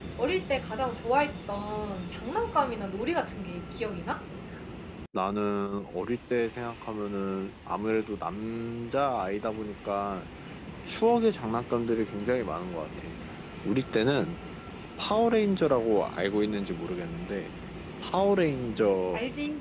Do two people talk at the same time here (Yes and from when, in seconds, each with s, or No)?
No